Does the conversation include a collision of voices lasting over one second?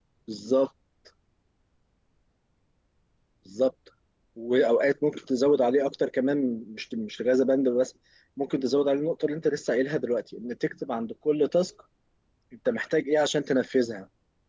No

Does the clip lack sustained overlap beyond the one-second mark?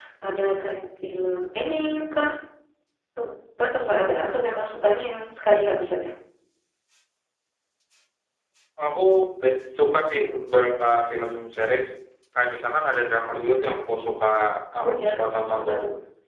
Yes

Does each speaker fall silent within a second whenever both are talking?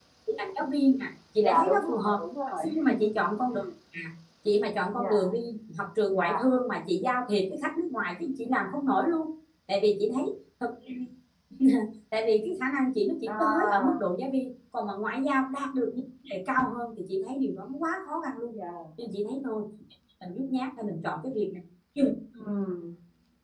No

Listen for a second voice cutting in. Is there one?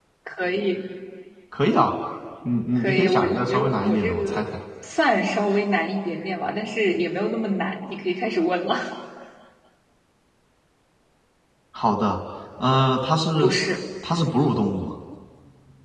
Yes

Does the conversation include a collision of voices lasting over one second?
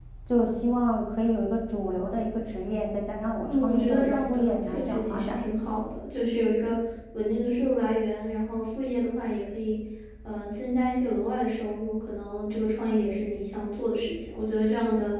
Yes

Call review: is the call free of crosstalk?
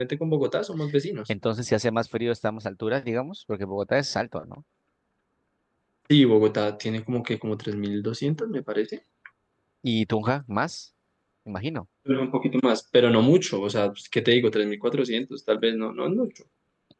Yes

